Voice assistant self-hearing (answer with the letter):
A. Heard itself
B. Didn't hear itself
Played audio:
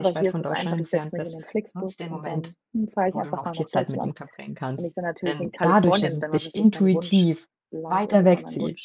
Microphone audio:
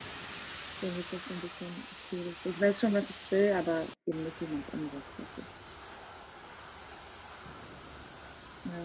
B